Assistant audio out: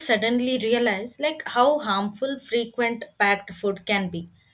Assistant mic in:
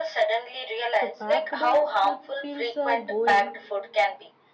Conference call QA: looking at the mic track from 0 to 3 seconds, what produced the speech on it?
both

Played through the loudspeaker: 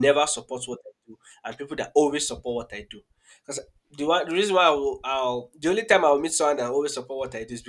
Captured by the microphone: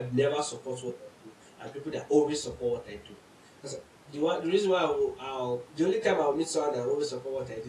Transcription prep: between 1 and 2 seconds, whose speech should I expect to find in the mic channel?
echo only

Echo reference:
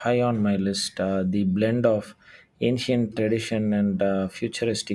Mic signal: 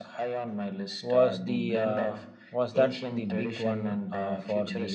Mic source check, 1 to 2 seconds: both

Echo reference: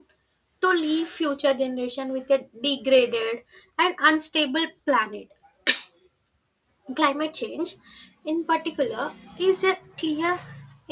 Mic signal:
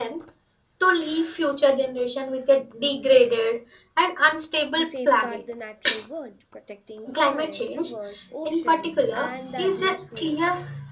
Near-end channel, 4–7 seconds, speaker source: both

